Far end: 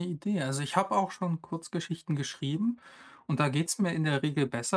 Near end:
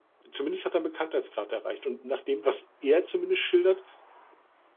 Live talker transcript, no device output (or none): Zumindest hat er einen Bekanntheitsgrad erreicht. Und nach dem, was er zumindest schildert,